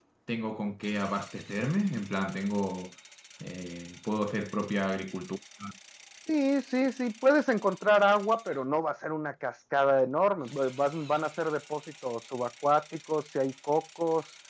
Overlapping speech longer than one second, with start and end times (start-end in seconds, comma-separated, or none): none